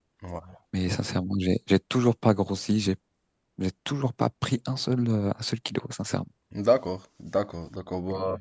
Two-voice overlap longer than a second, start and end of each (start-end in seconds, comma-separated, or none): none